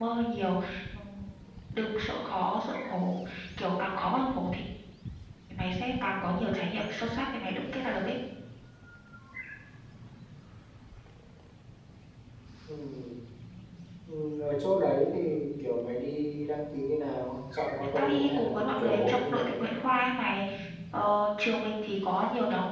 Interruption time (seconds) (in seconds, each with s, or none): 17.9 s